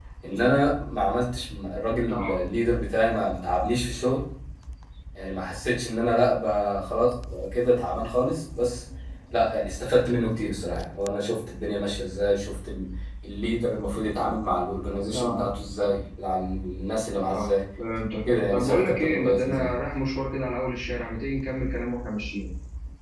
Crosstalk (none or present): present